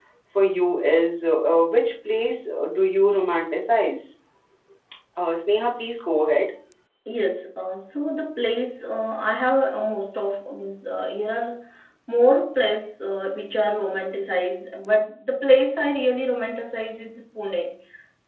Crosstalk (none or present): none